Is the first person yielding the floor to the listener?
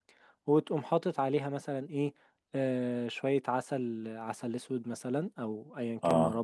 No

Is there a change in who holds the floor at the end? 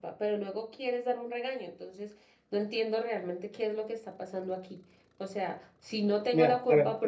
Yes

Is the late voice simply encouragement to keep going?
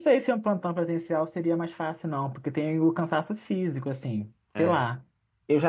Yes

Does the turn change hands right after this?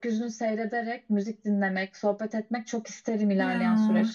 Yes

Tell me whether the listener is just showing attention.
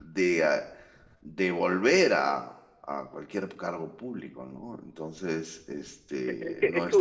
No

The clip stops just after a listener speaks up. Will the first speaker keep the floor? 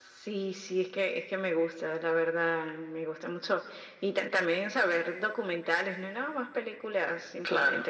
Yes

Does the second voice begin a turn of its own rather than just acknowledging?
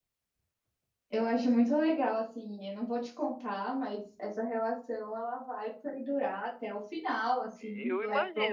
Yes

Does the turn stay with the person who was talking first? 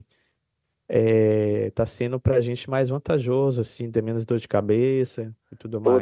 No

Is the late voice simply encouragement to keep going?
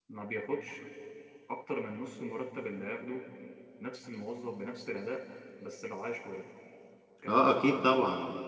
No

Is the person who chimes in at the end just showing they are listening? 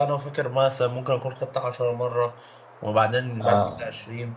Yes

